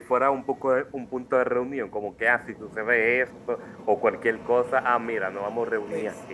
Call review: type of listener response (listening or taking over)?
taking over